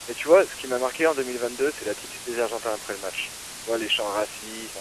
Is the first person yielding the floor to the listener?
No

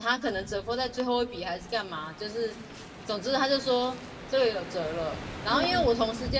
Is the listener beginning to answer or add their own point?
No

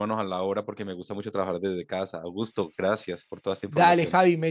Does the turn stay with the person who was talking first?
No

